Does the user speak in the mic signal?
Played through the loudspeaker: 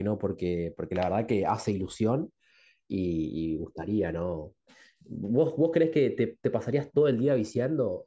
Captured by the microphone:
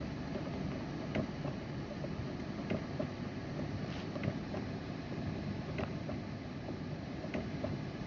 No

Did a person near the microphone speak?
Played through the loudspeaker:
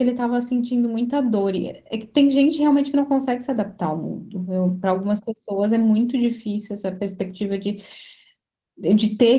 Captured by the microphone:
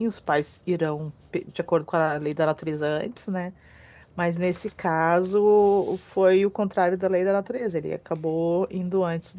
Yes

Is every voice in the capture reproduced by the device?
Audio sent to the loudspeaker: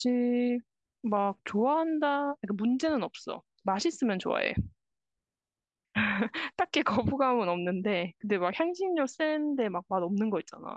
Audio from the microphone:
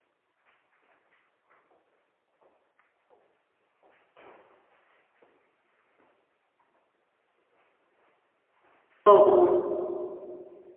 No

